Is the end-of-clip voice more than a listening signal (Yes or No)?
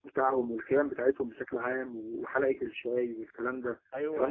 Yes